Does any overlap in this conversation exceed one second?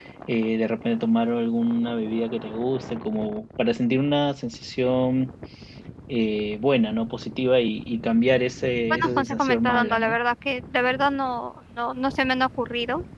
Yes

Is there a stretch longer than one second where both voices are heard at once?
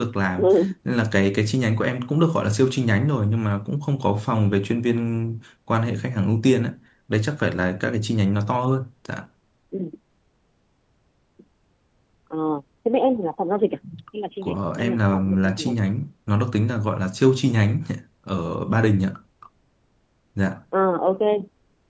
Yes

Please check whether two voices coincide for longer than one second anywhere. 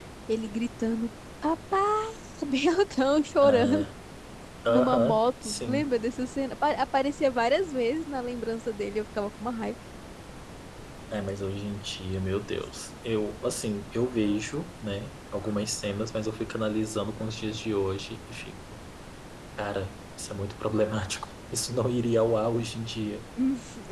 Yes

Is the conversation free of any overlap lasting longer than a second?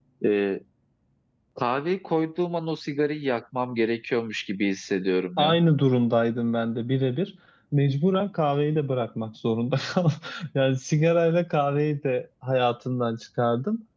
Yes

